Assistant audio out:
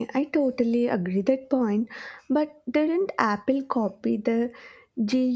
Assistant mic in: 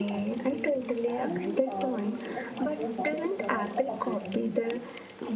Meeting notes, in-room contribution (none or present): present